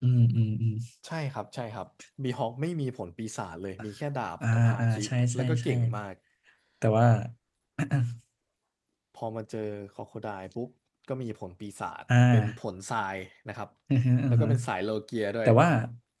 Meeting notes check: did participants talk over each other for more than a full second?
Yes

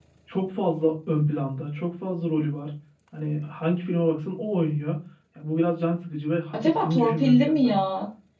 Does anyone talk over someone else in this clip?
Yes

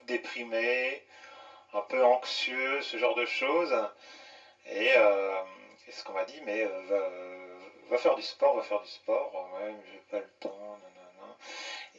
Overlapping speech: No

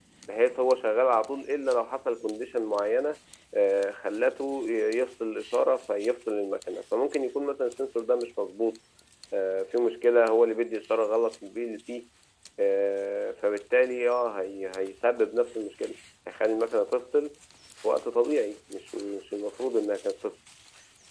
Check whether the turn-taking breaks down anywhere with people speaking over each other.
No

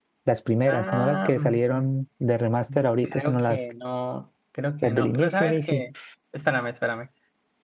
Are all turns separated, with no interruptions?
No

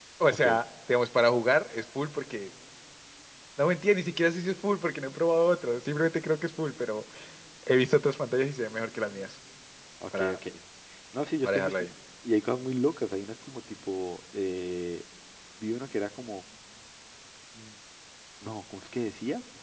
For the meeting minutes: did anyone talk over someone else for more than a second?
No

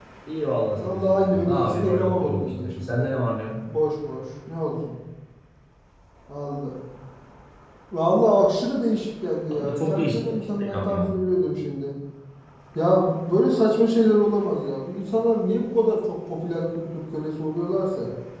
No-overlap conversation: No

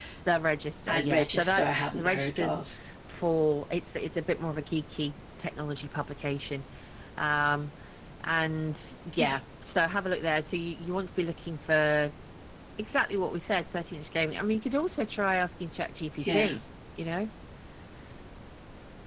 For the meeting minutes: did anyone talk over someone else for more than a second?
Yes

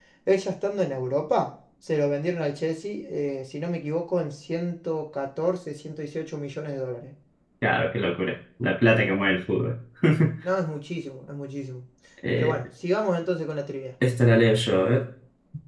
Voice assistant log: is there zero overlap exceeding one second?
Yes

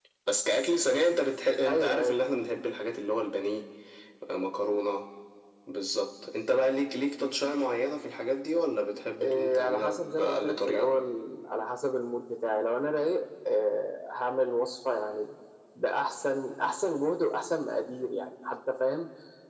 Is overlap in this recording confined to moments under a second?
No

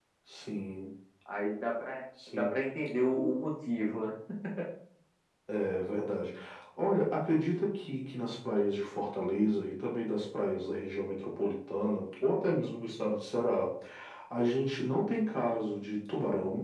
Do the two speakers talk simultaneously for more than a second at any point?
No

